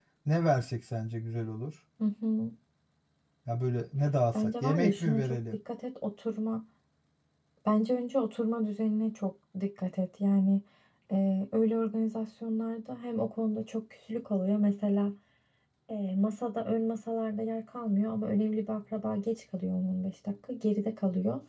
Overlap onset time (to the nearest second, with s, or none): 4 s